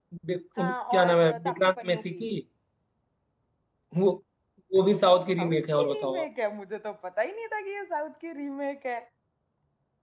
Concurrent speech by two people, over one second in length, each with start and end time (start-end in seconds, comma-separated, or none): 0.6-2.2, 5.0-6.3